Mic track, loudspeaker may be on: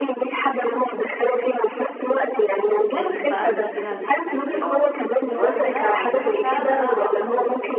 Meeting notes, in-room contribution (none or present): present